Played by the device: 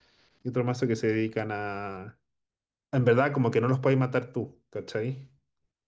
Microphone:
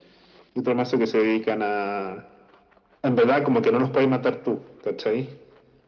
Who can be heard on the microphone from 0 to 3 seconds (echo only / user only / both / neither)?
echo only